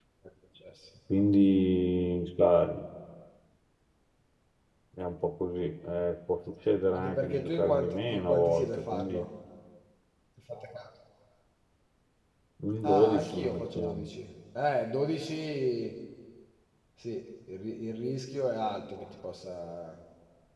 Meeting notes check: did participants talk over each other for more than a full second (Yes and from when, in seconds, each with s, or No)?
Yes, from 6.9 s